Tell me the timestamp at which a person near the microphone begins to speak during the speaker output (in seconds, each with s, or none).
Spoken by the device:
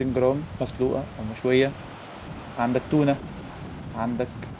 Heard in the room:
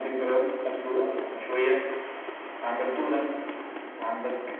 none